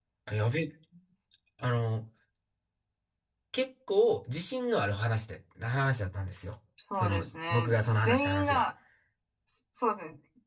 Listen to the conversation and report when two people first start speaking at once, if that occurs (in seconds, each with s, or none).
6.9 s